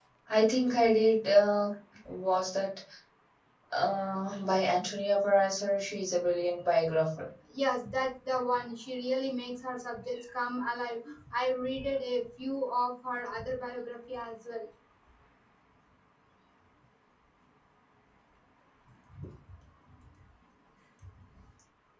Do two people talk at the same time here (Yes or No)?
No